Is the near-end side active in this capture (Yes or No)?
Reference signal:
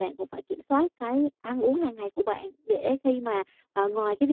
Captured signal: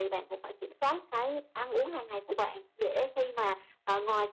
No